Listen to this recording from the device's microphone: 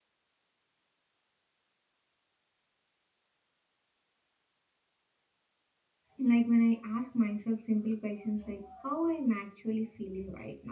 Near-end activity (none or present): present